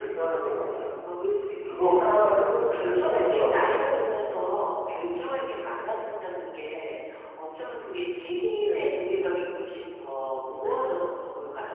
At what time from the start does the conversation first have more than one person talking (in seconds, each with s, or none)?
1.6 s